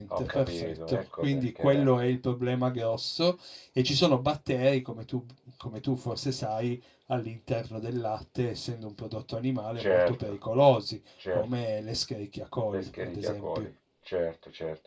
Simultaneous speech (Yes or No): Yes